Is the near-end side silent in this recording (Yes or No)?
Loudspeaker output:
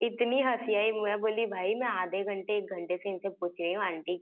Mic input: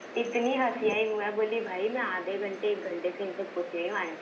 Yes